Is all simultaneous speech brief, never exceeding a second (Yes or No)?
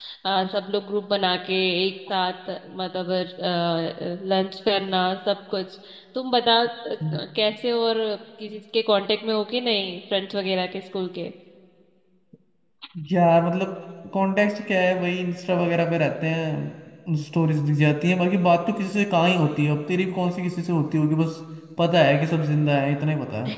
Yes